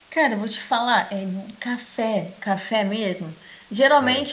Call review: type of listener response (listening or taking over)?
listening